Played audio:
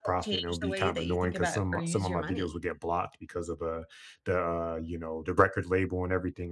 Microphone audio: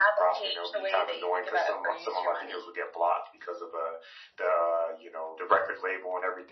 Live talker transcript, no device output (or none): none